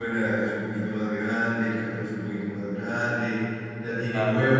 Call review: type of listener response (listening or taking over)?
listening